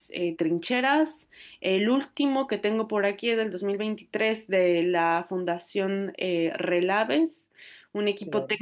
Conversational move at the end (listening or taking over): listening